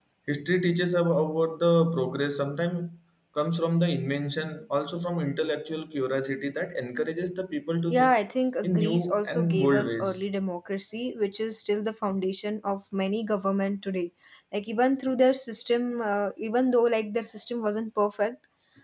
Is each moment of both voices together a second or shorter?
No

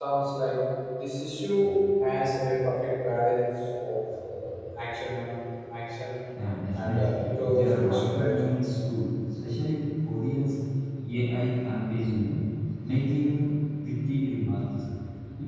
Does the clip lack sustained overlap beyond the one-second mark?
No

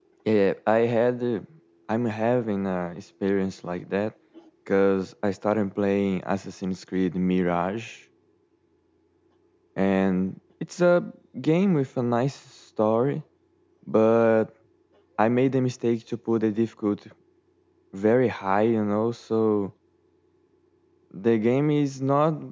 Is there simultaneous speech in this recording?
No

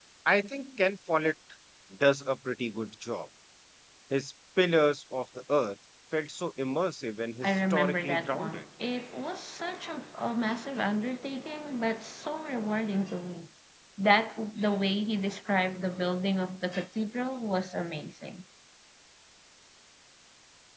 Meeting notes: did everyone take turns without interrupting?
No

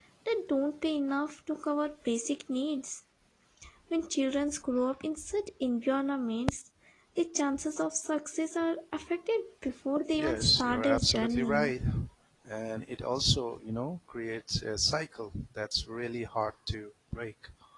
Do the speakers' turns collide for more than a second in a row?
Yes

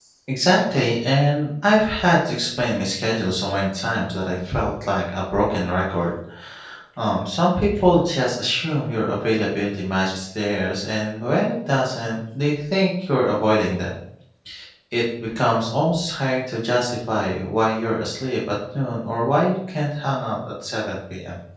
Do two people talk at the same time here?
No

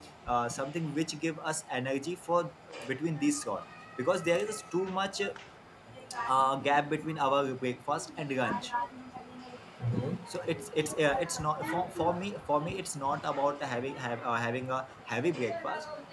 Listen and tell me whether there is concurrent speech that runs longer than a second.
Yes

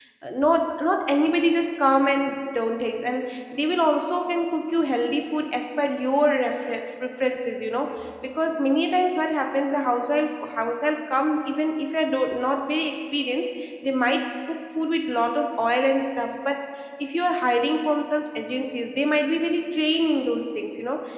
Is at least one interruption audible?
No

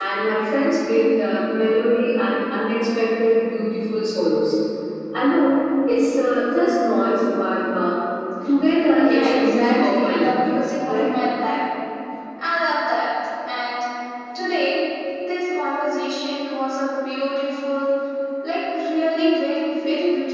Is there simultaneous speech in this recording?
Yes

